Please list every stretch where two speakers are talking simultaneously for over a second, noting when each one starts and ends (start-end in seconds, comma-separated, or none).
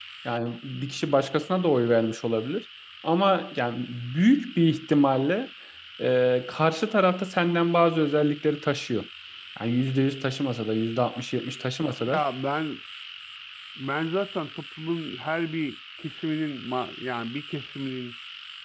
none